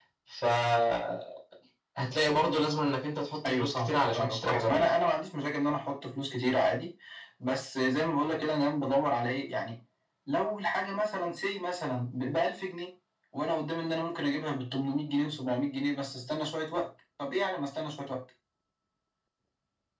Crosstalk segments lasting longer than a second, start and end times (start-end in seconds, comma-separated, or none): 3.5-4.9